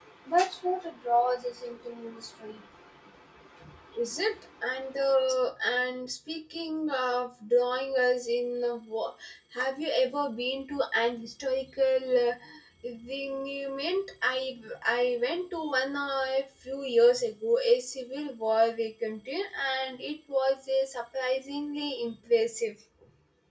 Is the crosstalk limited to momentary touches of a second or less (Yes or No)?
Yes